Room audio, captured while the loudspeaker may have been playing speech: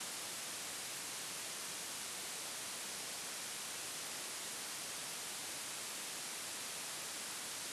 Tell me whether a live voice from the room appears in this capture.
No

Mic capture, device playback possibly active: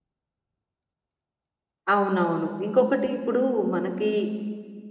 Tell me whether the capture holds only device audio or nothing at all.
No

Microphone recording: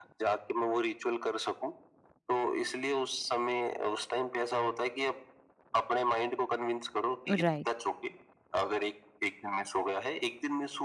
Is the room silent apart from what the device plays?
No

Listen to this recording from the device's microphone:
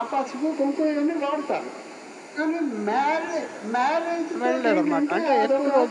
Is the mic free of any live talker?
No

